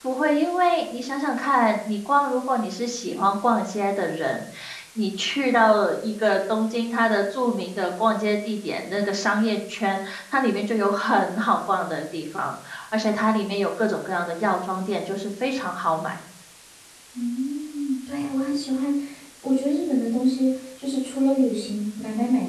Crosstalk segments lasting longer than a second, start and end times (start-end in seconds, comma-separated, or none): none